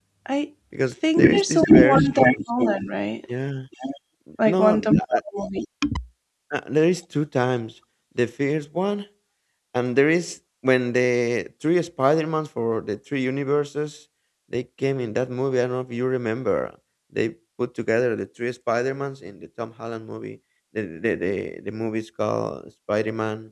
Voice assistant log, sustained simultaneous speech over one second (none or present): present